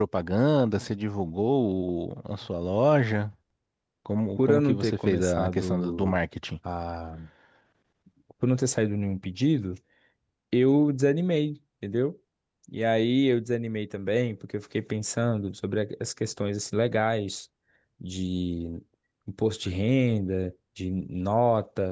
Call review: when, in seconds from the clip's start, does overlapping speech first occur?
4.4 s

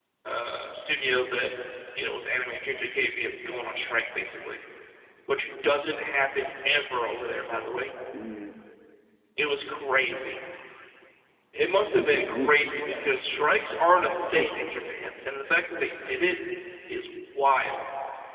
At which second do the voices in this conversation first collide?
11.9 s

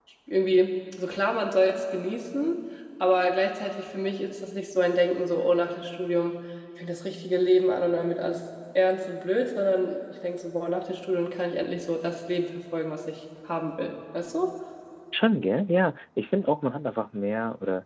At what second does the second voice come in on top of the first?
none

